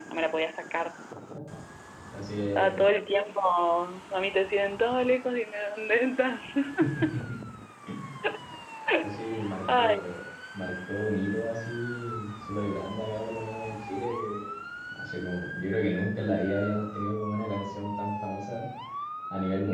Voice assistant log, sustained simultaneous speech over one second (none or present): none